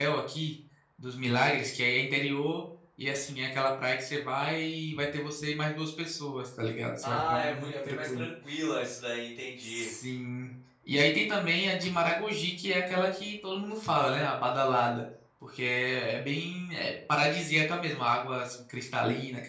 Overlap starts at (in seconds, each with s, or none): 7.0 s